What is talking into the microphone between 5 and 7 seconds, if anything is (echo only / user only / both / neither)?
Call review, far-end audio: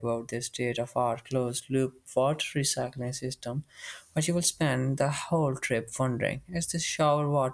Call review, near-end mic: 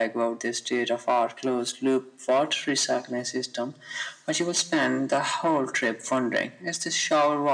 echo only